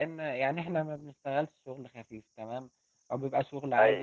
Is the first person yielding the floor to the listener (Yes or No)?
No